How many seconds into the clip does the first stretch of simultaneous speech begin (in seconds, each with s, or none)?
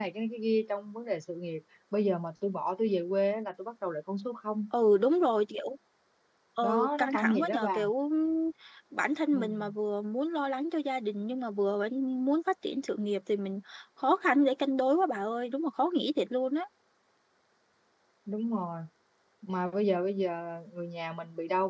6.6 s